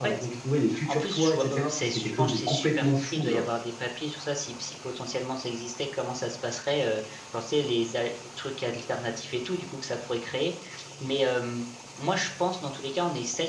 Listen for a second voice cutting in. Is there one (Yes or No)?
Yes